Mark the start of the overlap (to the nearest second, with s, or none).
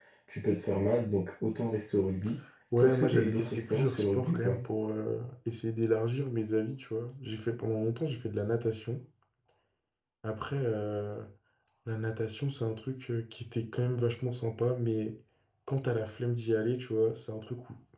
3 s